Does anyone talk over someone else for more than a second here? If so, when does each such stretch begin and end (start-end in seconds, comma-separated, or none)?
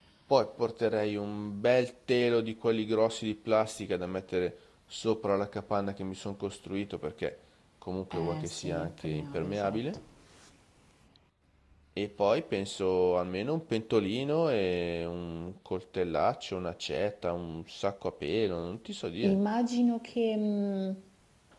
8.1-10.0